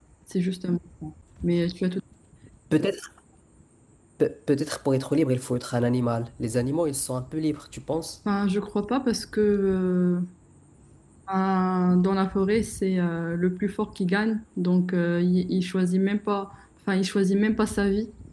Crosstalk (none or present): none